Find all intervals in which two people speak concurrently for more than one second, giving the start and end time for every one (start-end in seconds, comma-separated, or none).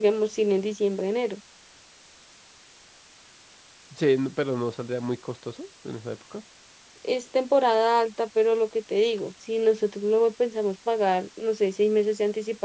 none